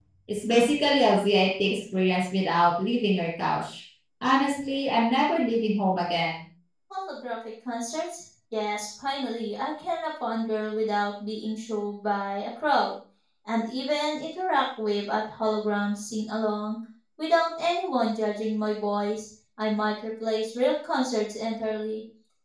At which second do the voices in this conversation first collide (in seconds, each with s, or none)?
none